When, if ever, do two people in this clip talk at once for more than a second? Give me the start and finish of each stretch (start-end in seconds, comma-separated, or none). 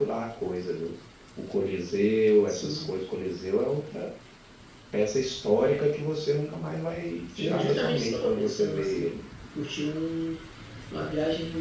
7.3-9.1